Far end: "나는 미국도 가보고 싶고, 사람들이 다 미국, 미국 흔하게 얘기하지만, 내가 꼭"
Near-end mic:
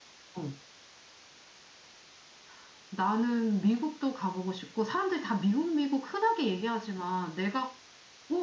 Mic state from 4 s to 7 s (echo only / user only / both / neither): echo only